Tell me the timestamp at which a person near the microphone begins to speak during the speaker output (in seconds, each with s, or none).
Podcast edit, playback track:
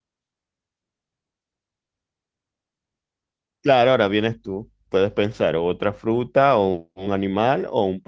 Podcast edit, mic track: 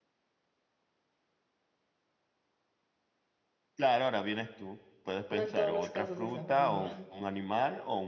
5.3 s